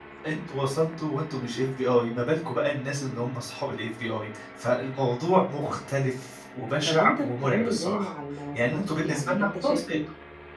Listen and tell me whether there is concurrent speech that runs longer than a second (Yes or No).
Yes